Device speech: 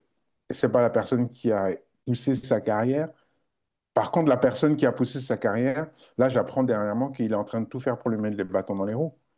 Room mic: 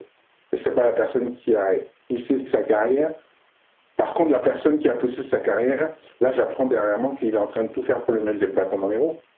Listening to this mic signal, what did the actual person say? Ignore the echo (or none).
none